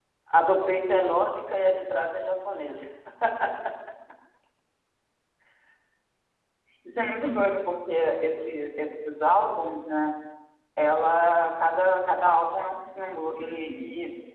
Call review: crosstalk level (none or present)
none